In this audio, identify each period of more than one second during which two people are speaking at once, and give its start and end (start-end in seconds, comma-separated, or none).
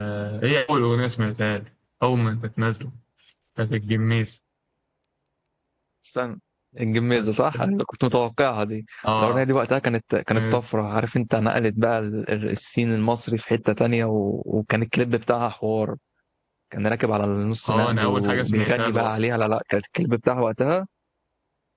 17.7-19.1